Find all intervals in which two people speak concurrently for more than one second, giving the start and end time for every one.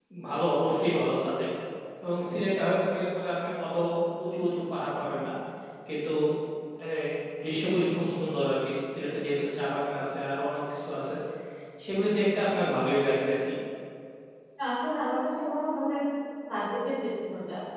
none

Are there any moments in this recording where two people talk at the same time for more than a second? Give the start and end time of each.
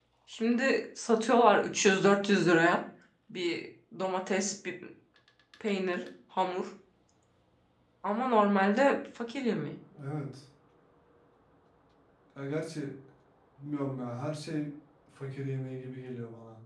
none

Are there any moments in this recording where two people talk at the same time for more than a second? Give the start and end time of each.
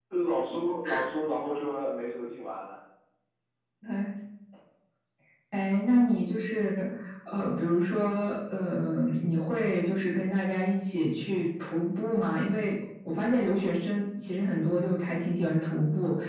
none

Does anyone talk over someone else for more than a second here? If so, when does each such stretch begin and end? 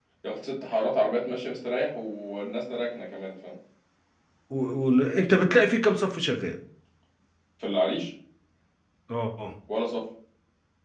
none

